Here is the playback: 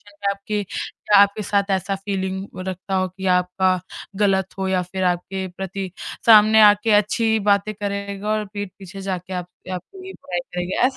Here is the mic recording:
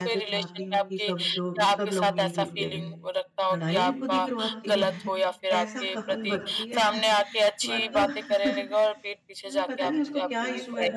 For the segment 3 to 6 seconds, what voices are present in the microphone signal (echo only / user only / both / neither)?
both